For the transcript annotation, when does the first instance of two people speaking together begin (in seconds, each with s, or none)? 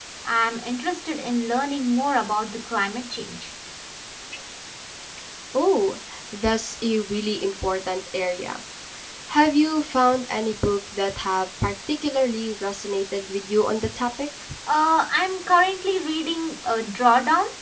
none